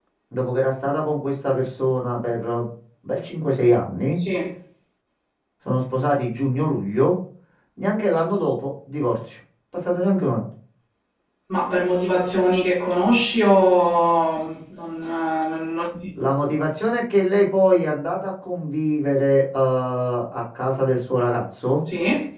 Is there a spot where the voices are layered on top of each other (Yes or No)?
No